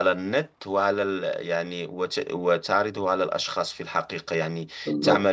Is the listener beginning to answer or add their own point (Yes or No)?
No